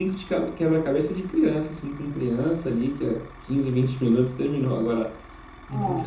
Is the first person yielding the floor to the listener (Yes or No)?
No